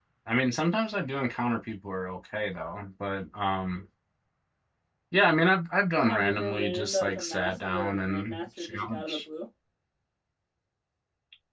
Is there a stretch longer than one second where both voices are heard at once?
Yes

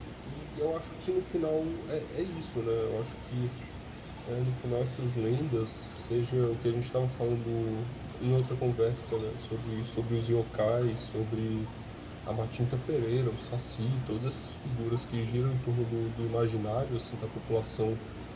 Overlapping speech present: No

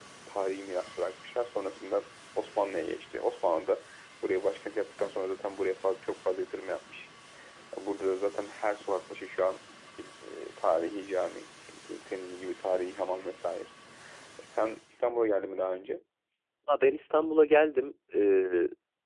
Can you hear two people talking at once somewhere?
No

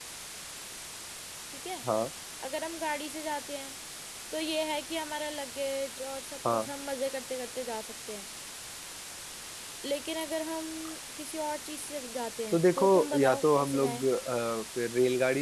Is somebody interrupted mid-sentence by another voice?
Yes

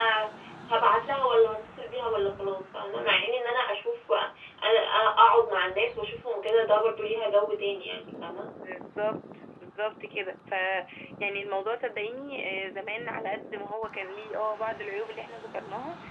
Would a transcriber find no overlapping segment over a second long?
Yes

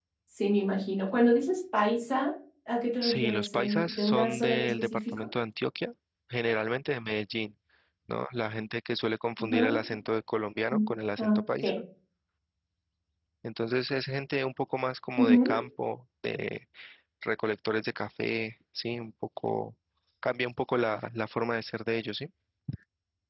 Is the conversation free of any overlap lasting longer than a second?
No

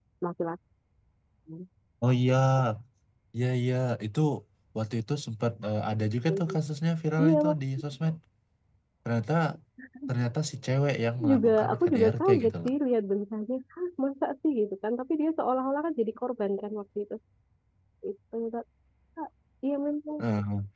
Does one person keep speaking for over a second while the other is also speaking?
Yes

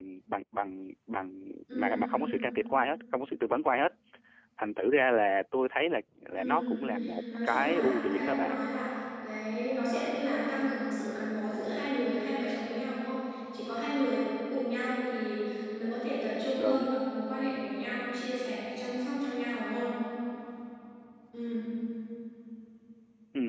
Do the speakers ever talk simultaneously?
Yes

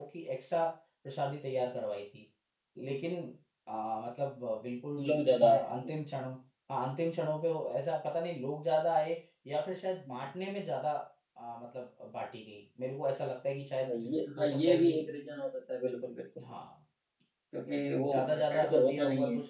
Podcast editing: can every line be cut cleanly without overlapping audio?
No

